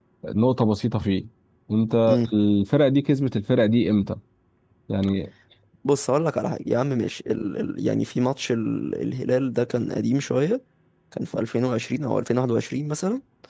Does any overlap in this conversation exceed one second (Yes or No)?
No